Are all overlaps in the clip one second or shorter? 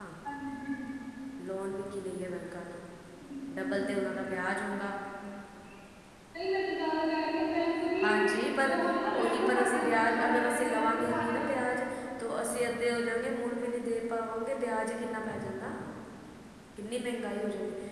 No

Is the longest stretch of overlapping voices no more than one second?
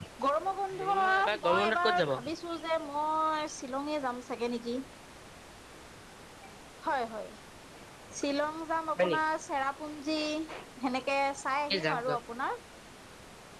No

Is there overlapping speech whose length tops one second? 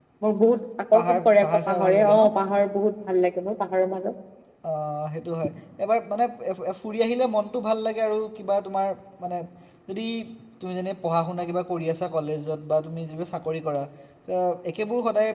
Yes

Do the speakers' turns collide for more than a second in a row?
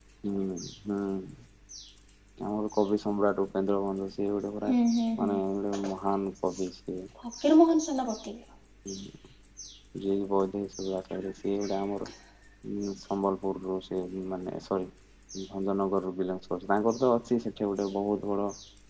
No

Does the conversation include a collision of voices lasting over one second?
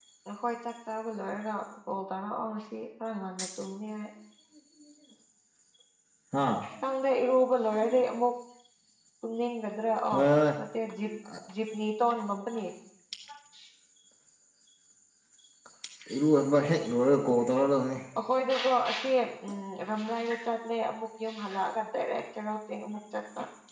No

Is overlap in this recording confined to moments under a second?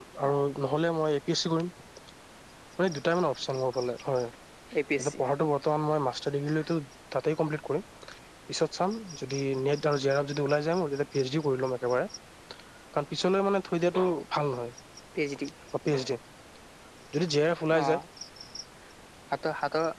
Yes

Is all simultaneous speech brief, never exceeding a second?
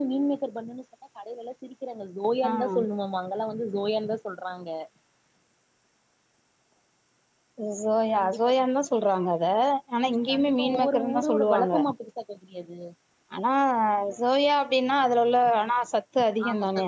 No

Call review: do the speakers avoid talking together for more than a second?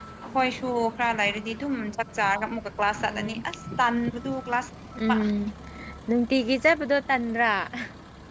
Yes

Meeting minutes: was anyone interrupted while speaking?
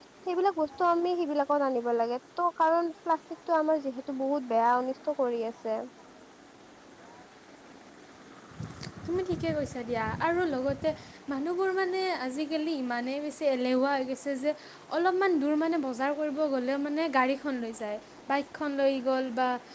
No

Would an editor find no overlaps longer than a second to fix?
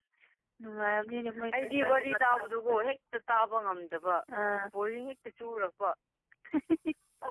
No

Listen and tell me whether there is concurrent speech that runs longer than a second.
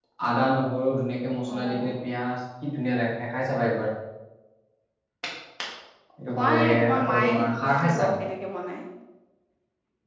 Yes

